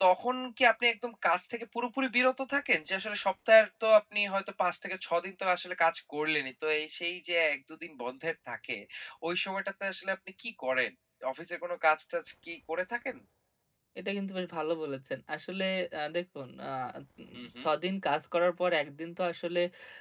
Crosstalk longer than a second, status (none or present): none